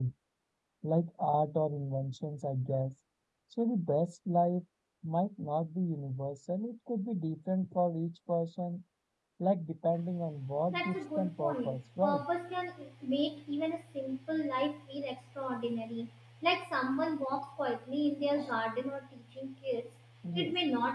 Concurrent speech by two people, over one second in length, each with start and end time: 10.7-12.2

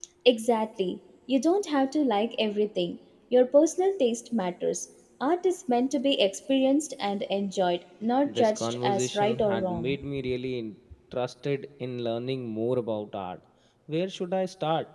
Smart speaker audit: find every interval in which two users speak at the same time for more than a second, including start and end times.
8.3-9.9

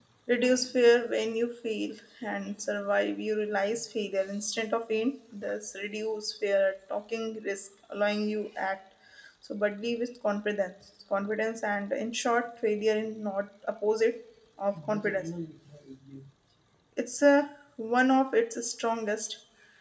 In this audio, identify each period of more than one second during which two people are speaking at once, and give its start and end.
none

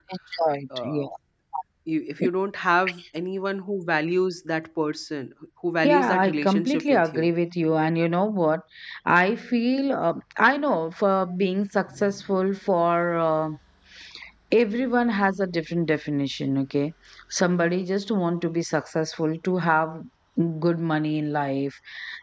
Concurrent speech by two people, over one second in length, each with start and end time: 5.8-7.3

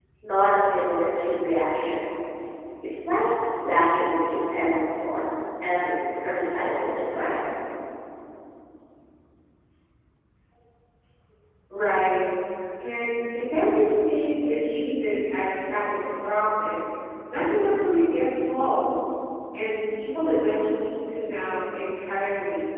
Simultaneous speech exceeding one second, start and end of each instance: none

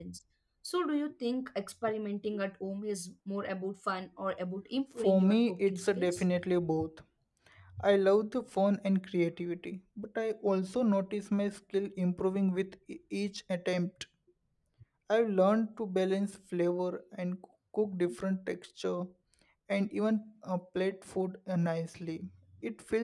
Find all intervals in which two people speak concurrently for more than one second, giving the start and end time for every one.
5.0-6.2

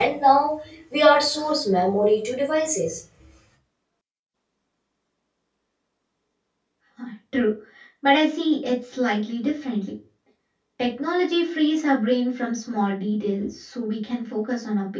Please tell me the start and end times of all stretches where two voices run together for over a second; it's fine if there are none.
none

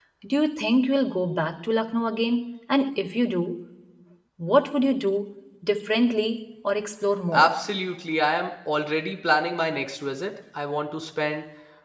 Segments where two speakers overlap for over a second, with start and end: none

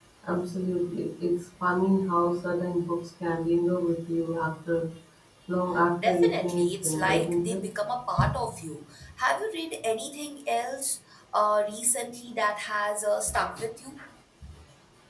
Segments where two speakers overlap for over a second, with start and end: 6.0-7.6

